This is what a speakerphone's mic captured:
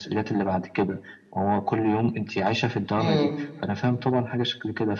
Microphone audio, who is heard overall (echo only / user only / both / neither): both